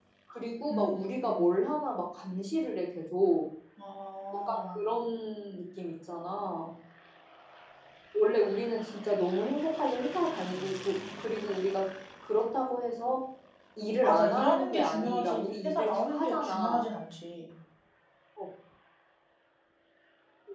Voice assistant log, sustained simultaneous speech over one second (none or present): present